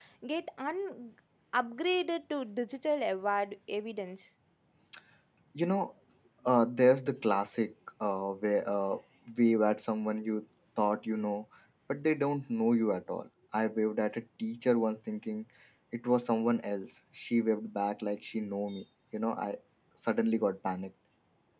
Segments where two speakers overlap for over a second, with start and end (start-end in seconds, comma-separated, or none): none